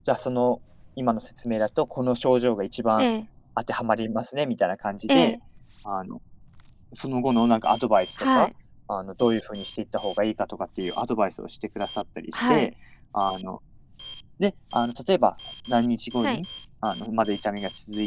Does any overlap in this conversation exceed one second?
No

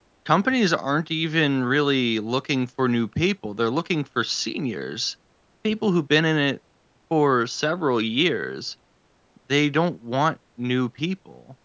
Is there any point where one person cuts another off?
No

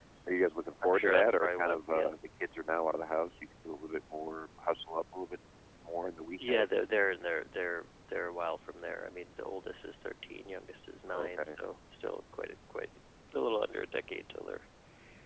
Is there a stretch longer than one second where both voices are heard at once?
Yes, from 0.8 s

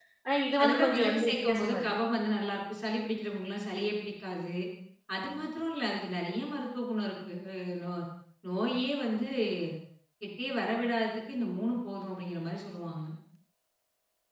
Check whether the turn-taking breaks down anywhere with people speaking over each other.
Yes, from 0.6 s

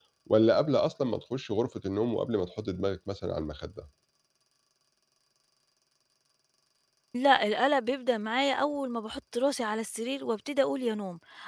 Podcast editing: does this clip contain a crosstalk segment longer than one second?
No

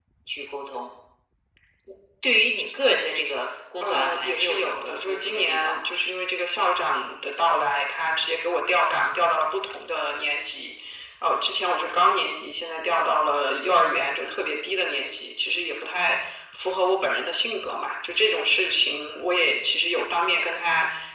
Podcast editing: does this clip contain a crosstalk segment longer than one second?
Yes, from 3.8 s

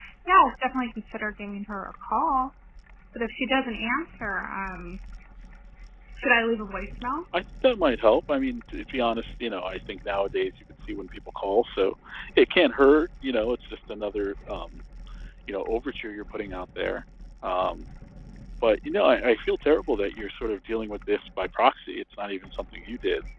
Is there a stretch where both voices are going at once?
No

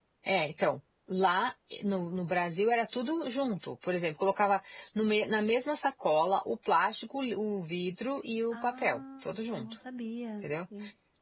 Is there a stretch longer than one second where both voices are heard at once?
Yes, from 8.5 s

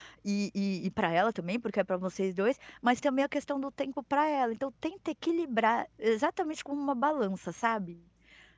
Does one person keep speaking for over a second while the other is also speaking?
No

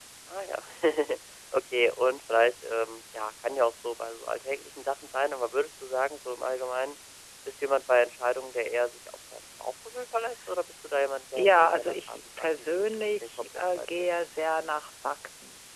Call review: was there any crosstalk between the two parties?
Yes, from 11.4 s

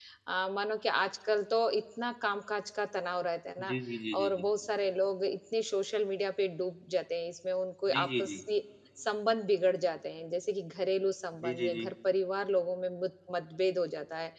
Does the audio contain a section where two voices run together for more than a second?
No

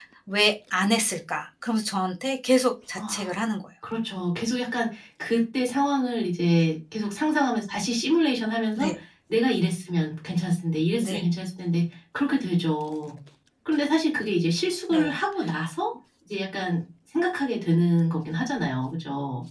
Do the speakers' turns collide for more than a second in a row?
No

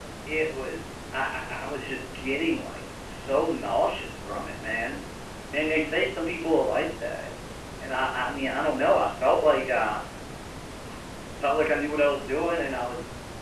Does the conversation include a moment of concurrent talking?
No

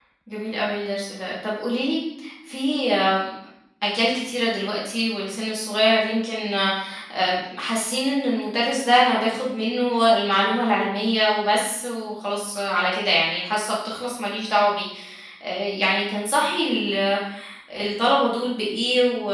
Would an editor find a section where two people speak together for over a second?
No

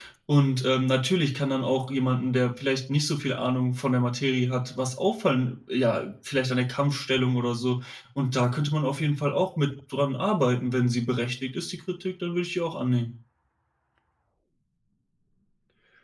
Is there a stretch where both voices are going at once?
No

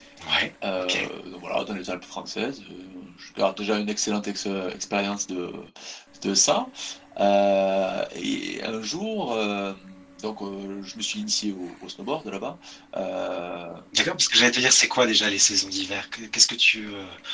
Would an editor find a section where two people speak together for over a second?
No

